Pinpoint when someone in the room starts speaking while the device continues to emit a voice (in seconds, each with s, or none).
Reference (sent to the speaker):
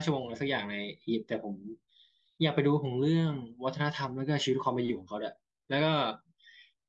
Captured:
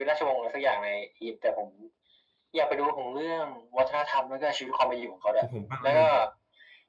5.3 s